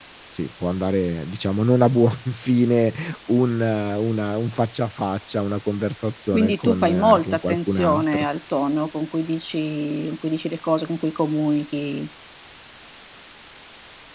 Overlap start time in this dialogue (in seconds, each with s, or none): 6.3 s